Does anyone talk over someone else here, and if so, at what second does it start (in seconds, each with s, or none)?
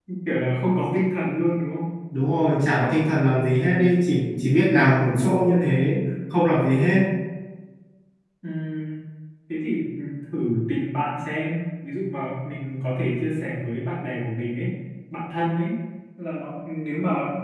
none